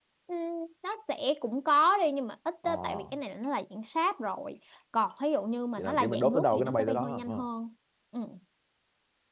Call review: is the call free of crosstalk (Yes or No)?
No